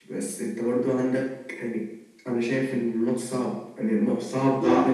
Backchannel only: No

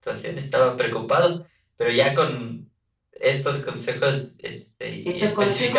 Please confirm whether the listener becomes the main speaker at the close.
Yes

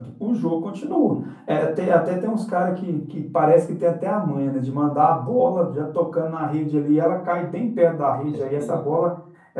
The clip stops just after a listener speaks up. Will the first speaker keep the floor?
Yes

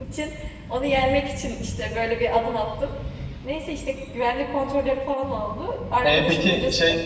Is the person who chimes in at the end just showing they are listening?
No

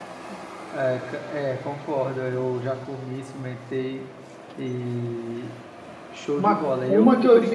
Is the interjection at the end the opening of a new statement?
Yes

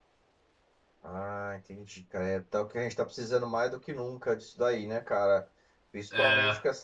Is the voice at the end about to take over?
No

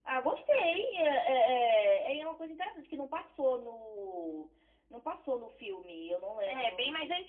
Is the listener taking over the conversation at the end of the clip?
Yes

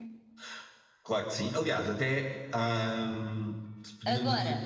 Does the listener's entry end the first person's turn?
No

